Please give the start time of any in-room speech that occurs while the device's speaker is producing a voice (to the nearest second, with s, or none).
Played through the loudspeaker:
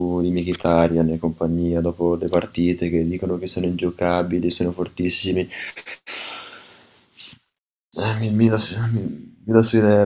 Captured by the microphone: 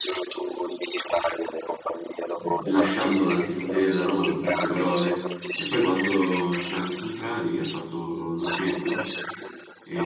2 s